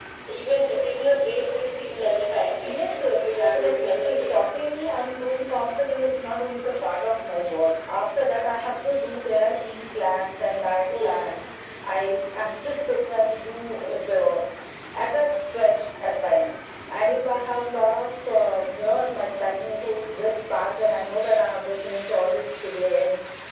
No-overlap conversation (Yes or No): No